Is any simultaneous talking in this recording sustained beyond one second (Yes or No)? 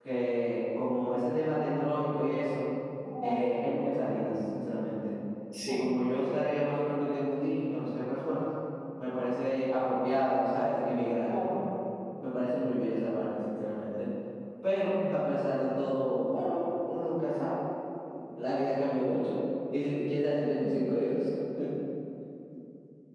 No